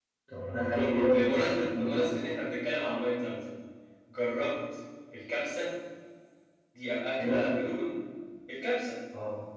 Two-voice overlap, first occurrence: 1 s

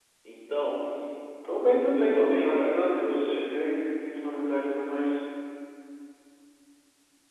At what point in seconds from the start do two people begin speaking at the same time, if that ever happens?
2 s

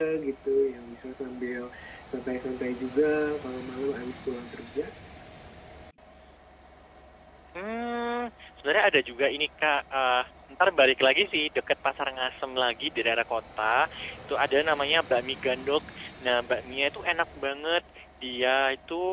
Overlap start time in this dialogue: none

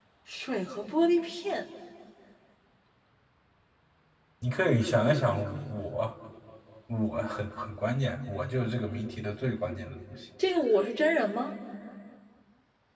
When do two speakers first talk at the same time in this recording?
none

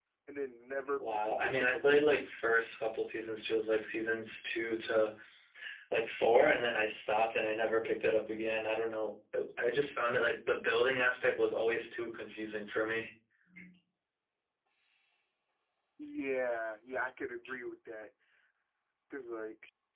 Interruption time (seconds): 1 s

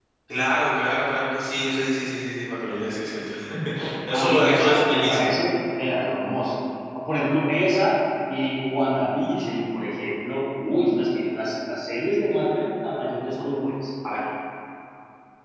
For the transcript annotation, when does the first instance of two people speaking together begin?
4 s

